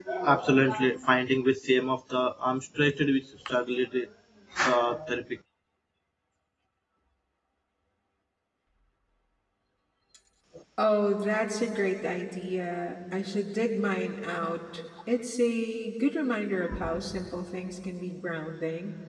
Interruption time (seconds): none

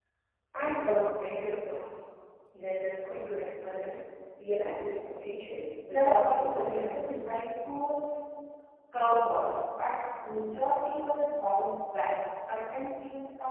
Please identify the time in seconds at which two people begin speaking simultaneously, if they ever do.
5.9 s

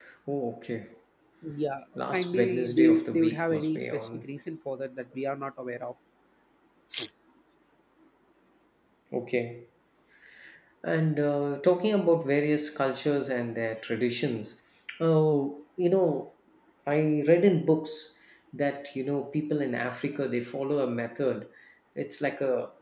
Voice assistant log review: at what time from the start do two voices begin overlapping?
2.1 s

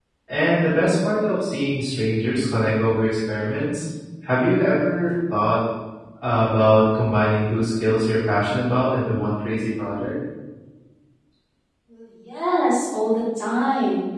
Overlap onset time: none

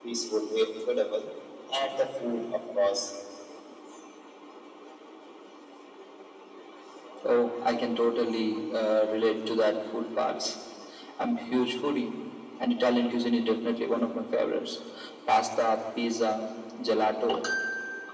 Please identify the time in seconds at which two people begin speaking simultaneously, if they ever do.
none

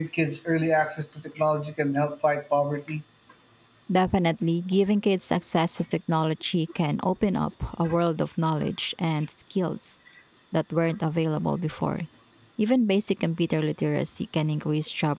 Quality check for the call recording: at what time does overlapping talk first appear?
none

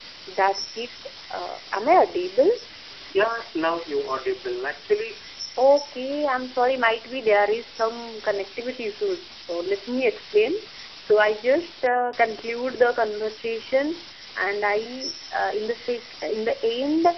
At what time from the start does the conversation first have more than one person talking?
none

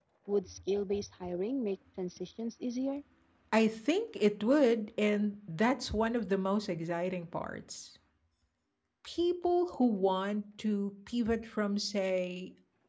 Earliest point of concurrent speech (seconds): none

